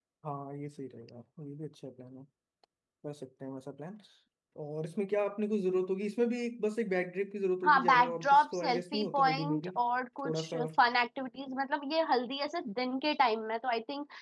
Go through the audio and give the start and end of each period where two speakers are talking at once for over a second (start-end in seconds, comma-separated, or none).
7.6-9.7